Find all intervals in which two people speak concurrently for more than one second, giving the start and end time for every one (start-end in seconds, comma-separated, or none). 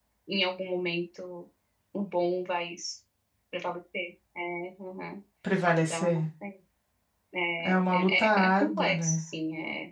7.6-9.2